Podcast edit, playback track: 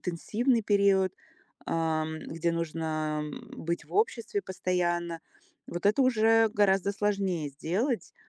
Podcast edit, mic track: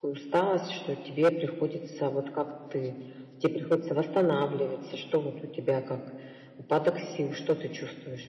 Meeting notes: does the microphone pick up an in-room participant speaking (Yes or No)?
Yes